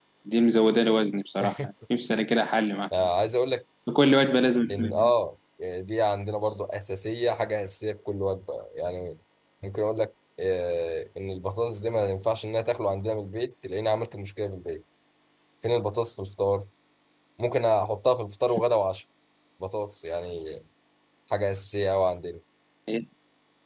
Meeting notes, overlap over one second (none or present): none